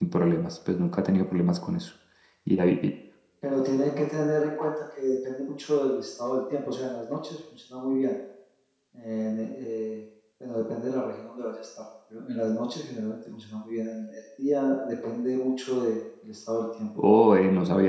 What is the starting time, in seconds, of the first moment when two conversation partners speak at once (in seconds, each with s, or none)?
none